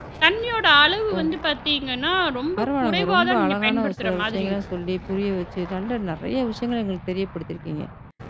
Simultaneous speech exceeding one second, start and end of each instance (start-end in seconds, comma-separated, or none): 2.6-4.6